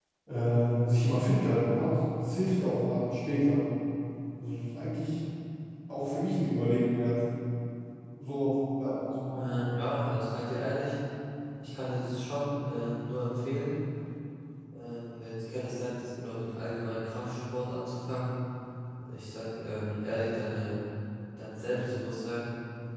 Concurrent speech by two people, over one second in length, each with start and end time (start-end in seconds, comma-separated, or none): none